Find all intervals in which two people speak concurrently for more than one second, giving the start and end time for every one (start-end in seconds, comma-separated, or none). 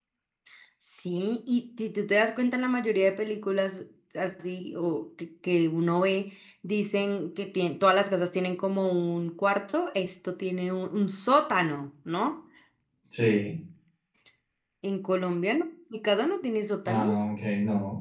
none